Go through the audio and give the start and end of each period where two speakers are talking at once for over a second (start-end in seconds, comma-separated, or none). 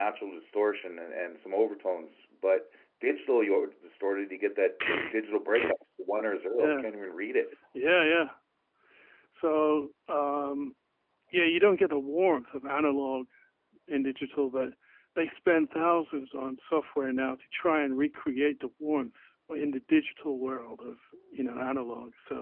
none